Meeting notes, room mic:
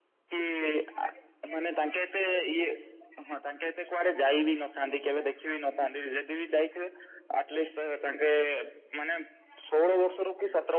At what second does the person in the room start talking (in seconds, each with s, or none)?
none